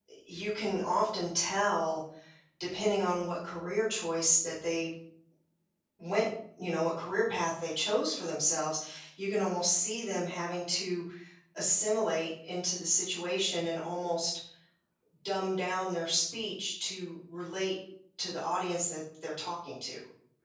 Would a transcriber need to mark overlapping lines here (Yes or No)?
No